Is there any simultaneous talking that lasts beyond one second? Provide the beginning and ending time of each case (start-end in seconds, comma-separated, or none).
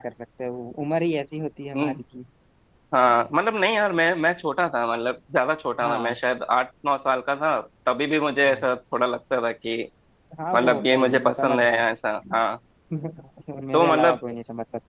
10.5-11.8